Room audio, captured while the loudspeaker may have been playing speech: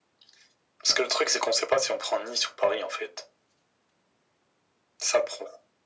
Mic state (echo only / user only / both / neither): echo only